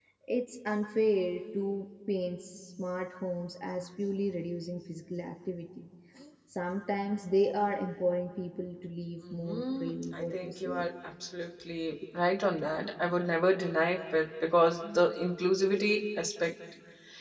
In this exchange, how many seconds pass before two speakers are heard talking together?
9 s

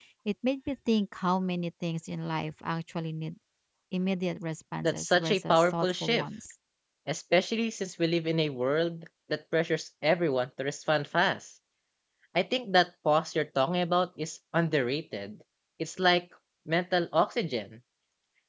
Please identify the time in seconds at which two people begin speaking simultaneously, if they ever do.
5 s

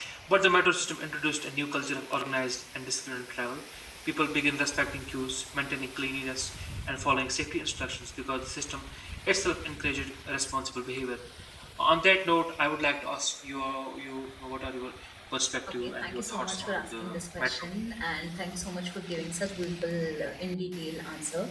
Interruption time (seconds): 16 s

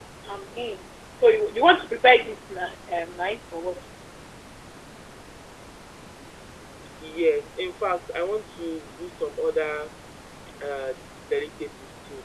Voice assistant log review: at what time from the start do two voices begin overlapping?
none

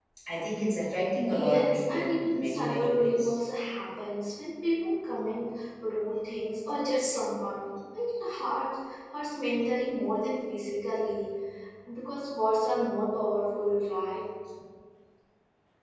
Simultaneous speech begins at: 1 s

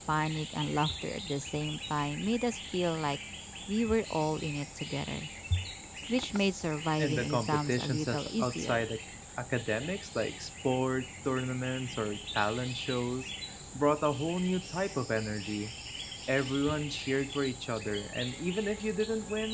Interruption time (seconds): 7 s

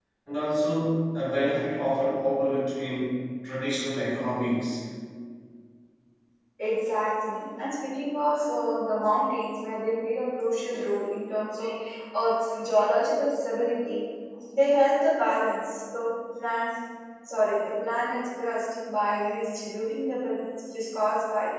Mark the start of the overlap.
none

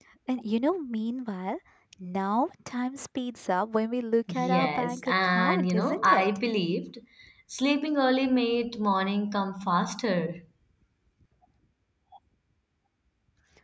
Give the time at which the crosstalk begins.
4 s

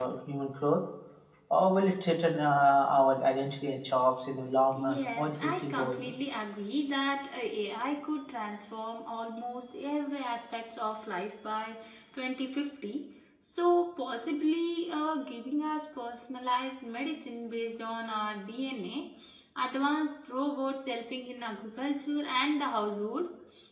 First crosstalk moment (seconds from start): 5 s

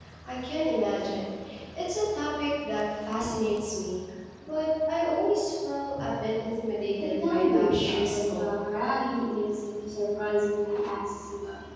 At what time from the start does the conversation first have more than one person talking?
7 s

